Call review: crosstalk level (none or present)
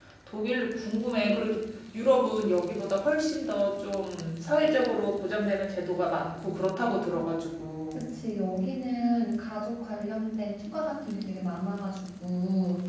none